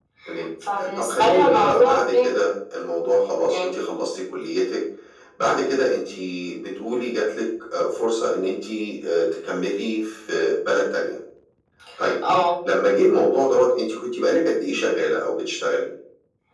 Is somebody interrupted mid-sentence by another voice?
Yes, from 0.9 s

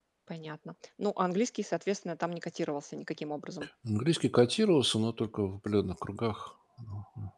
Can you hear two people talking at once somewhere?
No

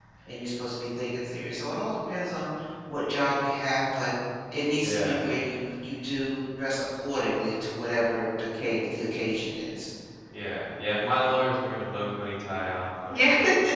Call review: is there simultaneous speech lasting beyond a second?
No

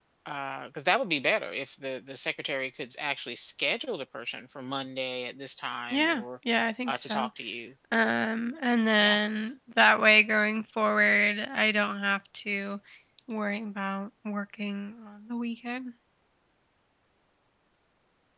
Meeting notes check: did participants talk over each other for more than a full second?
No

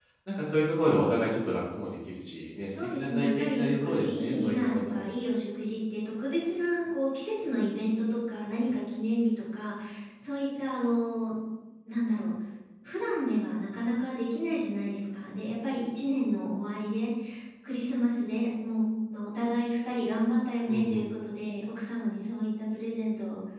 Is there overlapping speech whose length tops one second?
Yes, from 2.7 s

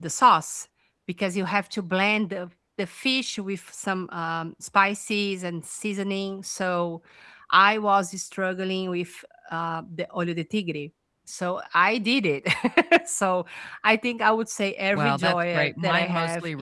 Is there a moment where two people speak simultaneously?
Yes, from 14.9 s

